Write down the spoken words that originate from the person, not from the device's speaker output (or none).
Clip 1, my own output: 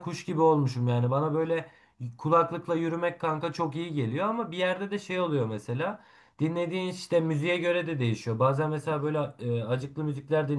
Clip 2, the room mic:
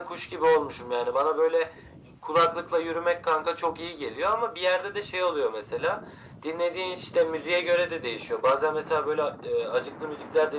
none